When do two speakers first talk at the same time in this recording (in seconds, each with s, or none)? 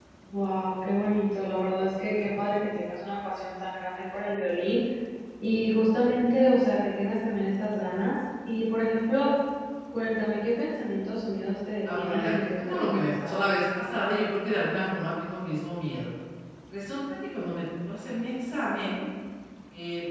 11.8 s